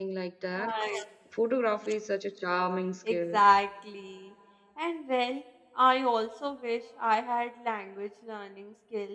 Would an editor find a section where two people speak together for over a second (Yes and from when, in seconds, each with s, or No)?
No